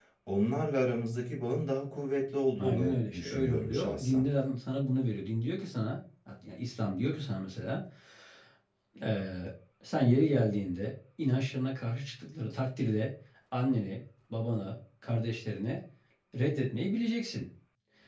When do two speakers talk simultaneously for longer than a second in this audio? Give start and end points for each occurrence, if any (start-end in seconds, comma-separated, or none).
2.6-4.2